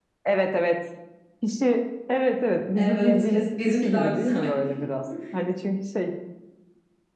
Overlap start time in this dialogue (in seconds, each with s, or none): 2.8 s